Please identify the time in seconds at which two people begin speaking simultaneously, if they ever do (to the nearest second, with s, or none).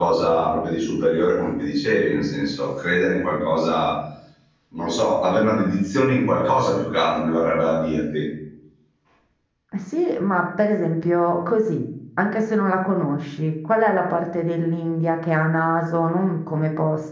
none